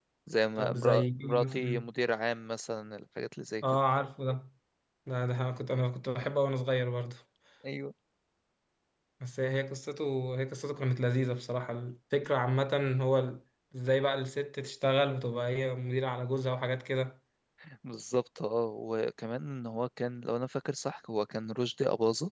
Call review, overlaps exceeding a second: present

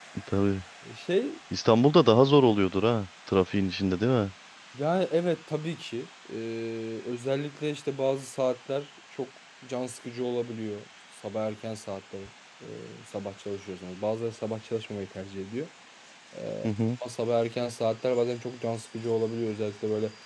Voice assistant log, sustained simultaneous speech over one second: none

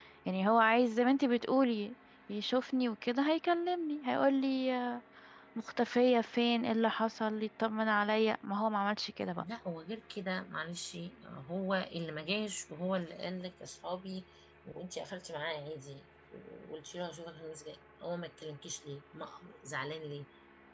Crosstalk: none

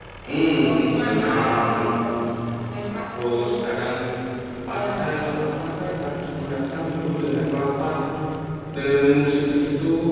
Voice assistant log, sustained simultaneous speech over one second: present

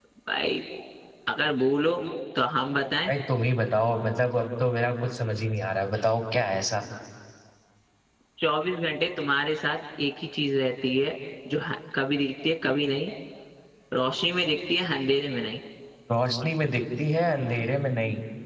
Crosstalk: none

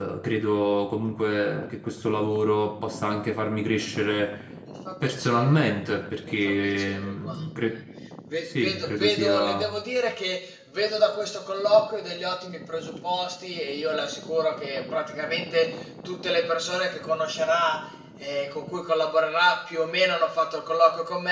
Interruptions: present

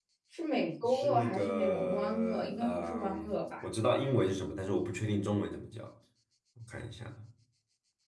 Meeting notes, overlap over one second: present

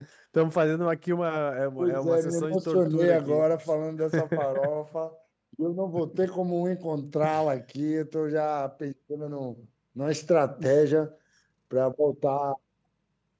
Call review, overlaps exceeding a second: present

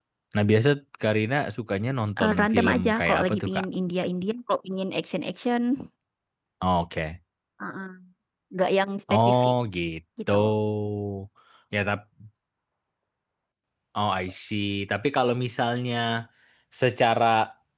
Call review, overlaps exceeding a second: present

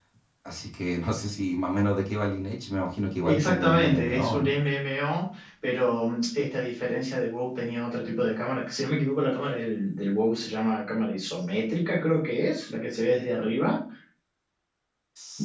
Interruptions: present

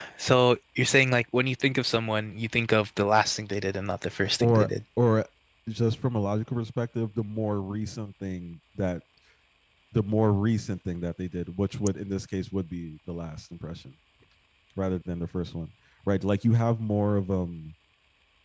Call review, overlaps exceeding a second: none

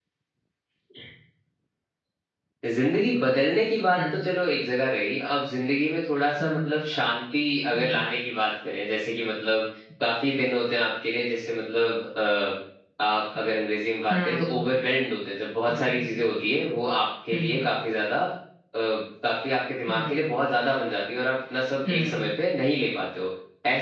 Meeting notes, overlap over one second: none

